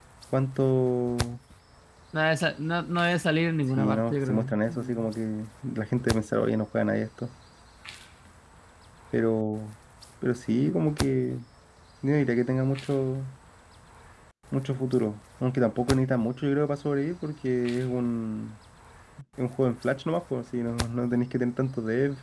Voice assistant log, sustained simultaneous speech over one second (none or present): present